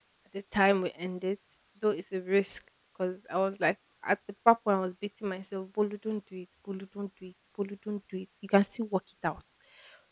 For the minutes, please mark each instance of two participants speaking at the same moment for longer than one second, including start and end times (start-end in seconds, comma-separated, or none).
none